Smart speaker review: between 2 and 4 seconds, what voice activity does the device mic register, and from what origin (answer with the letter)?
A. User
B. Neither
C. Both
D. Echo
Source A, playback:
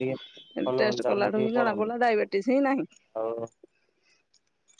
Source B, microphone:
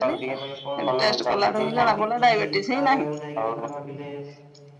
C